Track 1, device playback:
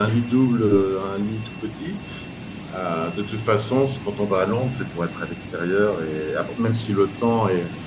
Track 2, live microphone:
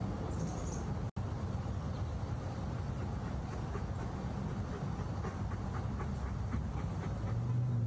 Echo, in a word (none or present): none